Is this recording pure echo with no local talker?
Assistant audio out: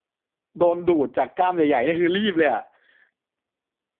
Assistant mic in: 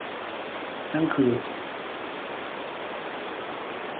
No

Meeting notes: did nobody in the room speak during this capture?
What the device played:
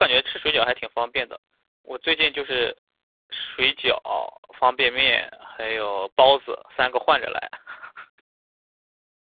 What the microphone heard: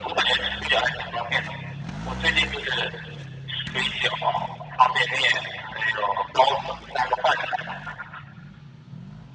Yes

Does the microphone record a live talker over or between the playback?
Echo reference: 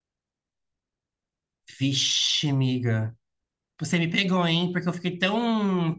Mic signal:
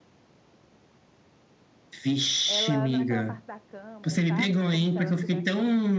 Yes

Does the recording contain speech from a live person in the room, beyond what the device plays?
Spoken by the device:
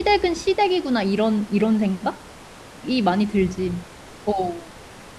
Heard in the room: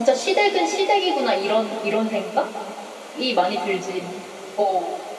No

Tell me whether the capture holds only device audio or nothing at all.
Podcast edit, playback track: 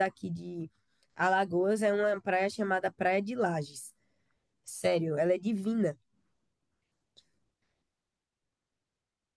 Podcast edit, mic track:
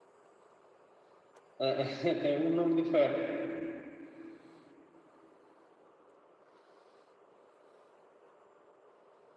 No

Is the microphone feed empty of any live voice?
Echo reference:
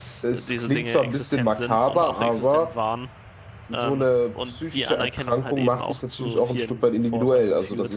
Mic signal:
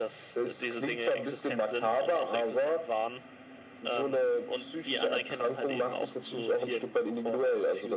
Yes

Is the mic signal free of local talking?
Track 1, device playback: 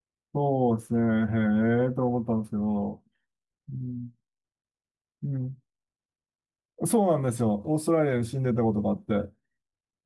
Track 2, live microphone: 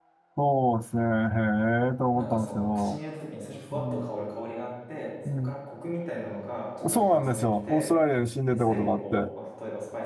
No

